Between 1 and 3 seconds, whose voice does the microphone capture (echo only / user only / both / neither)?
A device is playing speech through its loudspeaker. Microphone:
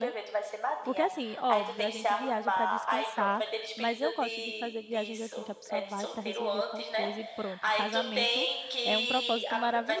both